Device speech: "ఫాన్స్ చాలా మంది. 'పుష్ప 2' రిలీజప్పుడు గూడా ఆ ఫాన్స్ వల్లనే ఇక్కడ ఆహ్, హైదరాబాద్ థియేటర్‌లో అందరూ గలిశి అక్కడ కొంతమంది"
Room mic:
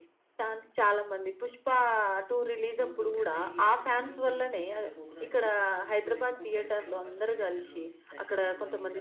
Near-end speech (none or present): present